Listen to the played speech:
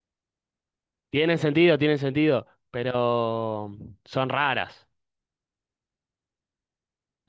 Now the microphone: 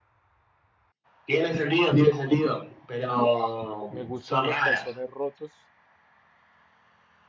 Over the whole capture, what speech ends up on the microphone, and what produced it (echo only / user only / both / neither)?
both